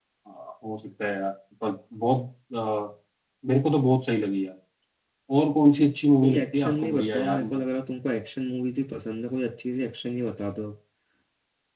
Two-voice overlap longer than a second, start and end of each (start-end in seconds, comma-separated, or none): 6.2-7.6